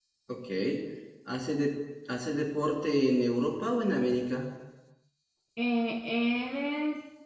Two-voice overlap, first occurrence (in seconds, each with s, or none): none